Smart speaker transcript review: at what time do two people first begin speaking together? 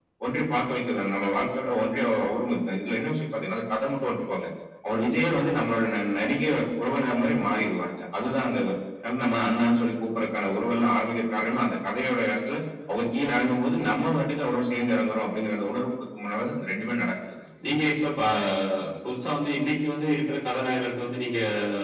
none

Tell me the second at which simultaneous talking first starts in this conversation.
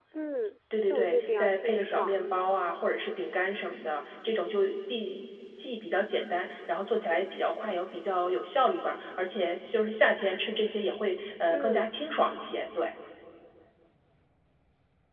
0.8 s

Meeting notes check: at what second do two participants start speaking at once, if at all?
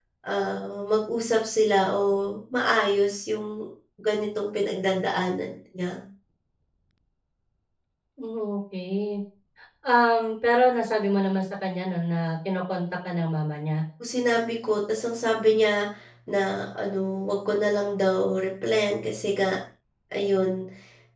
none

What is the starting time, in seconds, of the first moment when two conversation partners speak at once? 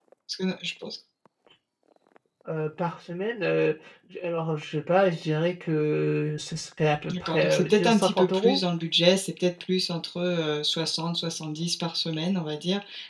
7.1 s

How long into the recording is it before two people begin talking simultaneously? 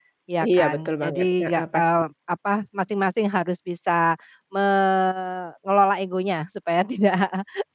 0.5 s

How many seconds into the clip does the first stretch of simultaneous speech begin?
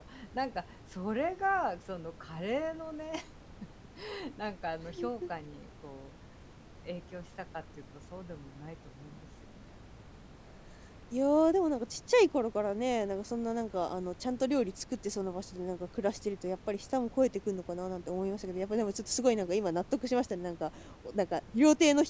none

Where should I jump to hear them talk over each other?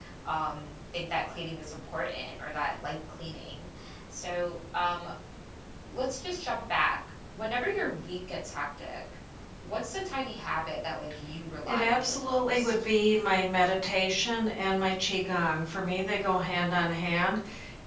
11.6 s

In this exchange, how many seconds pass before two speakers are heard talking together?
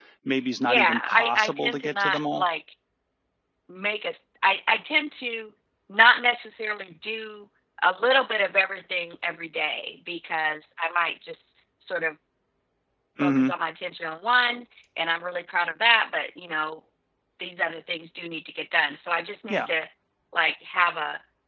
0.7 s

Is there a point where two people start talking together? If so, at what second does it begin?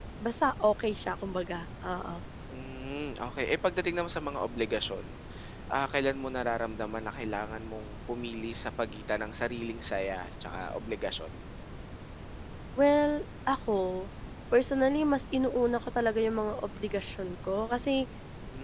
none

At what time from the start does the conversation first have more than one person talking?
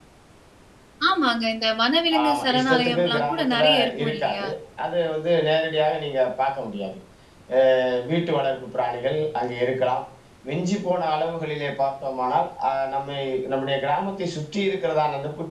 2.1 s

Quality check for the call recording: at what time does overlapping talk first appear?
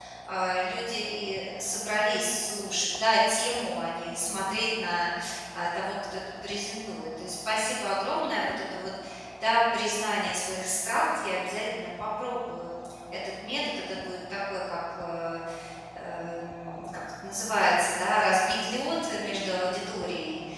none

